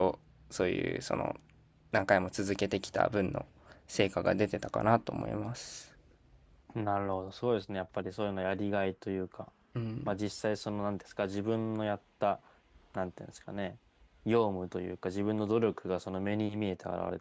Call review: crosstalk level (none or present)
none